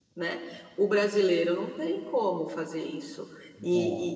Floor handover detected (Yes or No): No